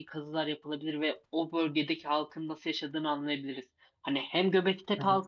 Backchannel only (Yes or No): Yes